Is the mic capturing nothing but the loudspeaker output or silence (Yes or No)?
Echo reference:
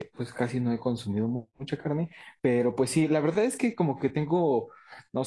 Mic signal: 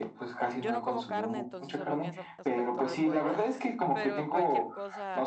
No